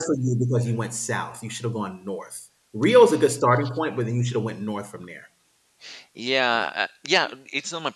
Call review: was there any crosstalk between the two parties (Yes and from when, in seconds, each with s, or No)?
No